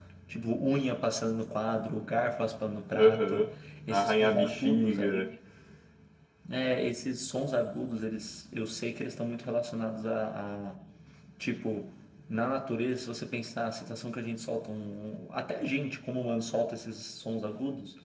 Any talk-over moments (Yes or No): Yes